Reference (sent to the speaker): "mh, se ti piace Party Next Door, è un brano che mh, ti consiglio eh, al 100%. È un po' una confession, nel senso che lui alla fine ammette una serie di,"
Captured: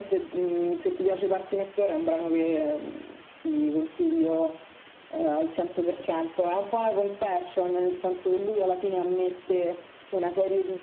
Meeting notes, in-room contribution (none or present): none